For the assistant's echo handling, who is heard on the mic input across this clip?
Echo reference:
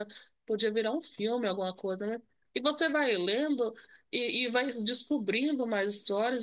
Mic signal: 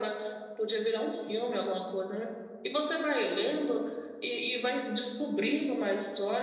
echo only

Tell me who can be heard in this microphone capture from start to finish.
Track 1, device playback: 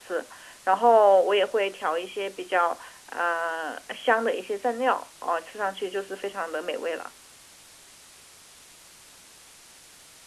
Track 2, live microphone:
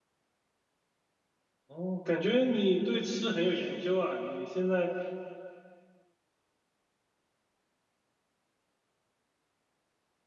user only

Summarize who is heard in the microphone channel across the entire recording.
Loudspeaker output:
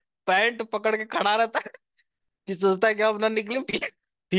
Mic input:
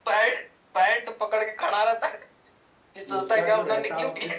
both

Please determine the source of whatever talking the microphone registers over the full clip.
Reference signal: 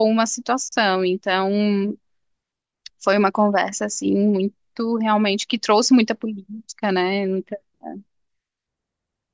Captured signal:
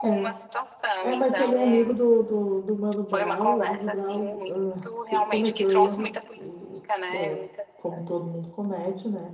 both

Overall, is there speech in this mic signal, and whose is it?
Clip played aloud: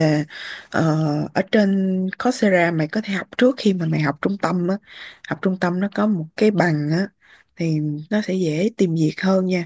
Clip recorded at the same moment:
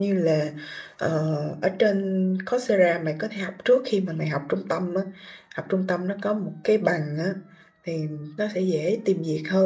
echo only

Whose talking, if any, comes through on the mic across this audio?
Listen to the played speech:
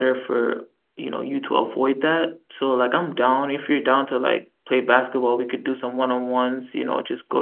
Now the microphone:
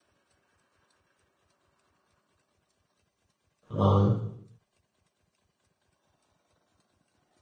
user only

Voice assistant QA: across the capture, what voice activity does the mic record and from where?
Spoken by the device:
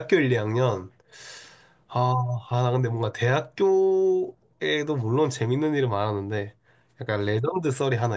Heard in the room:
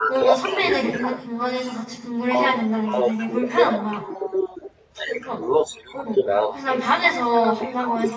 both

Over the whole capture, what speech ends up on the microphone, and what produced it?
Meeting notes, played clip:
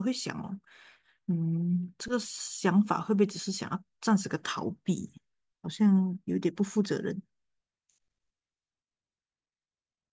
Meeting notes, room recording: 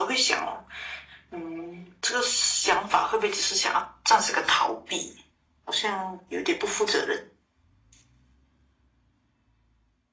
echo only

